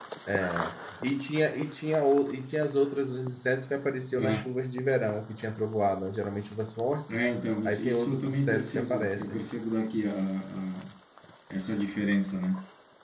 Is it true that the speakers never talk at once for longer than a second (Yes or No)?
No